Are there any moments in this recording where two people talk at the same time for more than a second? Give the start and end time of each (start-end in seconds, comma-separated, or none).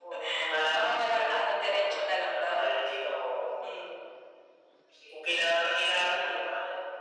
0.7-2.7